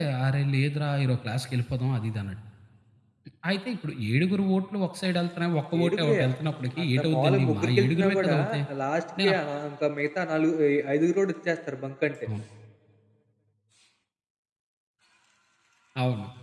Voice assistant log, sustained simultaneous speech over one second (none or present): present